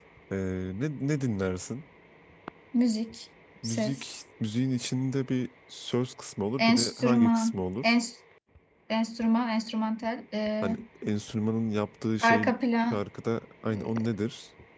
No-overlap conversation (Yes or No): No